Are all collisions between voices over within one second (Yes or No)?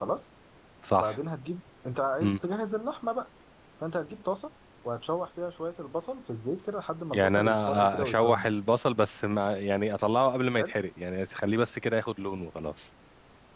No